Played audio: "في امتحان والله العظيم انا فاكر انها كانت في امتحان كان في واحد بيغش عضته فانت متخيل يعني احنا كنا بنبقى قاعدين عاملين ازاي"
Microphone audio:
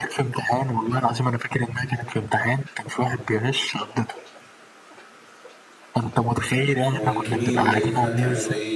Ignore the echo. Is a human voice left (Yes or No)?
Yes